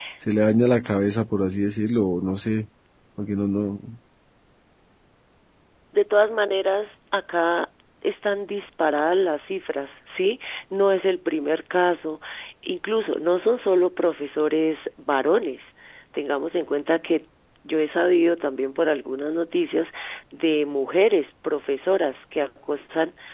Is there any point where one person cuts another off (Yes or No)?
No